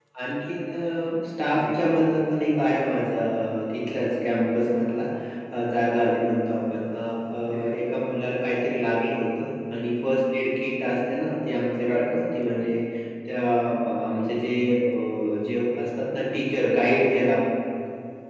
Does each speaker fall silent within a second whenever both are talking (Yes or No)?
Yes